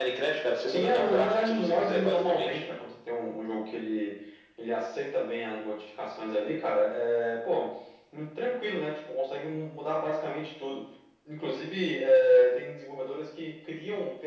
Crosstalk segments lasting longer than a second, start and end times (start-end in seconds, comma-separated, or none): 0.7-2.8